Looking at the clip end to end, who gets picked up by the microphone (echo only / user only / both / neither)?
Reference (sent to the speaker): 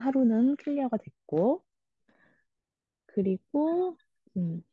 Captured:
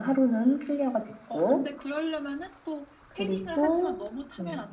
both